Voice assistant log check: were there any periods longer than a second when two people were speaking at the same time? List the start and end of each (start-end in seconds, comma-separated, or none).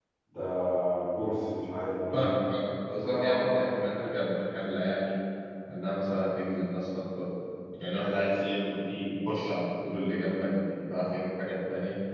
2.9-4.2